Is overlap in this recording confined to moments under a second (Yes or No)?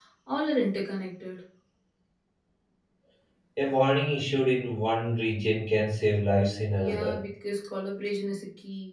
Yes